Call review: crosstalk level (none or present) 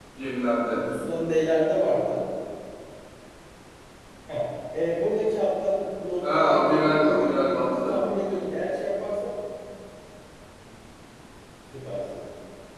present